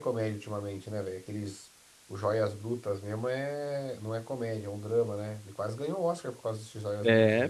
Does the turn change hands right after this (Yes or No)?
Yes